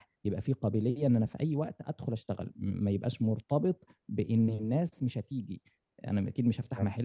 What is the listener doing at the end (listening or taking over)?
listening